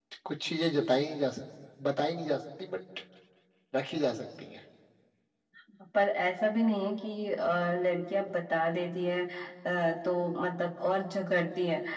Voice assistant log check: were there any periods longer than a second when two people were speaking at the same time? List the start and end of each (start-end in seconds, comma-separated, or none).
none